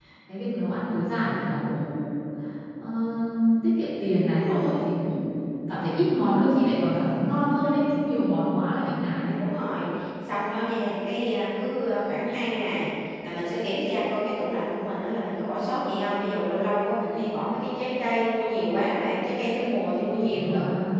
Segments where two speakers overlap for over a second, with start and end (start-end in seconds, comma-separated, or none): none